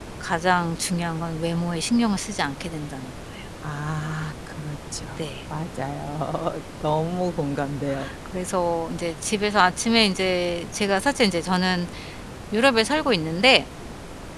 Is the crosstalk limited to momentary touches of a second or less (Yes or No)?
Yes